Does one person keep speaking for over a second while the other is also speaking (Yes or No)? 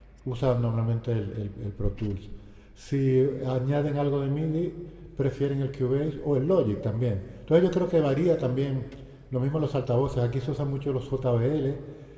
No